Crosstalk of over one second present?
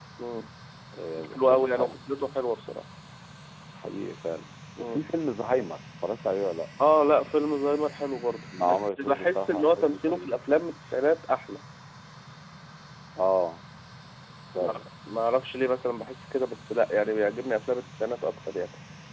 Yes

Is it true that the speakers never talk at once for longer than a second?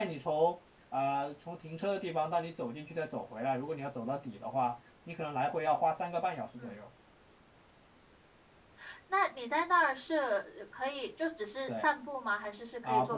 Yes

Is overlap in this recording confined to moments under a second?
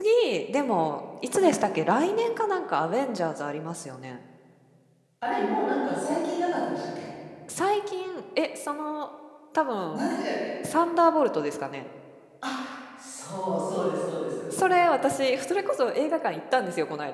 Yes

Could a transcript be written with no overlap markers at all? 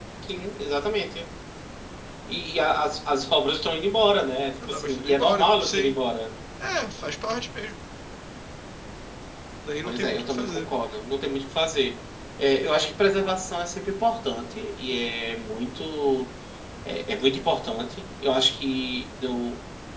No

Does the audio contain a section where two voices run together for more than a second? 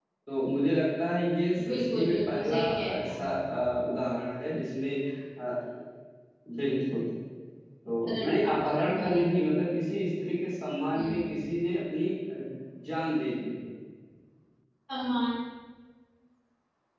Yes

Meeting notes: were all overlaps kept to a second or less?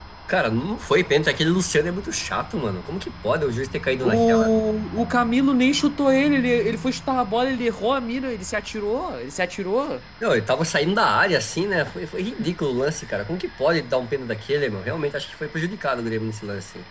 Yes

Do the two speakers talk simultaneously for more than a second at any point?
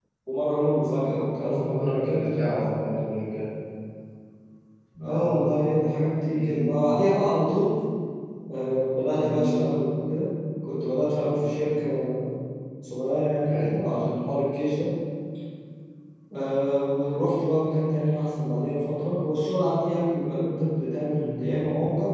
Yes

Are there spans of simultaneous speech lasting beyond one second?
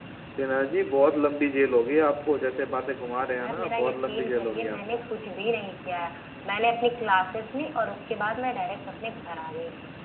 Yes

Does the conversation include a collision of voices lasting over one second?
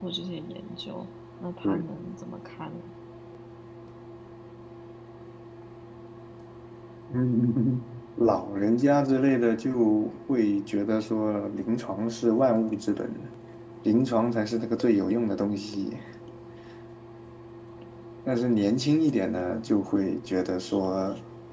No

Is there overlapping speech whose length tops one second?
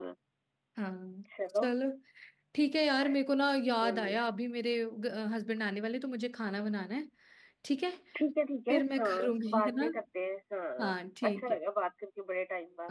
Yes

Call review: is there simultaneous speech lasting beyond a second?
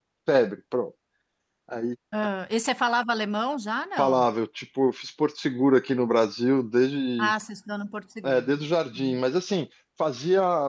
No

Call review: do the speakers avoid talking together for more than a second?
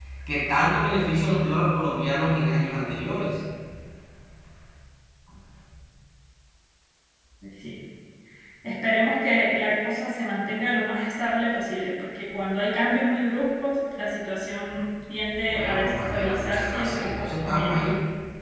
No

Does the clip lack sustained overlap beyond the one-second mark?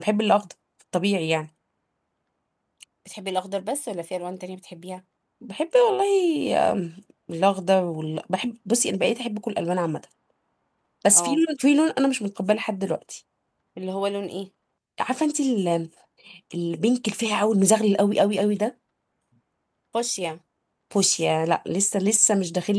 Yes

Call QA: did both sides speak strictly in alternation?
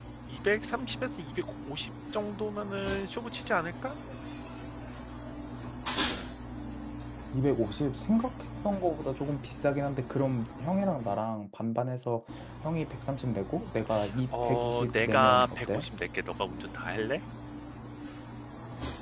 No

